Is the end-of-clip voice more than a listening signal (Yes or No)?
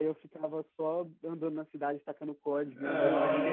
Yes